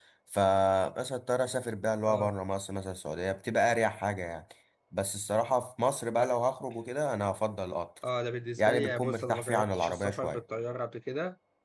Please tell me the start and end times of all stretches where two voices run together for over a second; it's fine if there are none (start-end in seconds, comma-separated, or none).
8.6-10.4